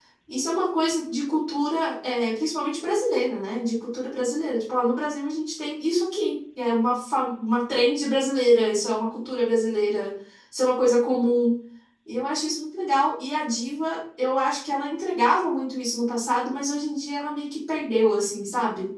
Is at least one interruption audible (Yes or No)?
No